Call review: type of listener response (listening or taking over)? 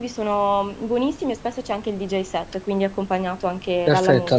taking over